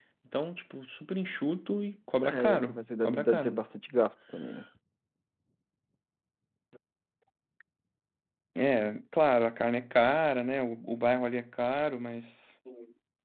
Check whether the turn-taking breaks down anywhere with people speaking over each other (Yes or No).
Yes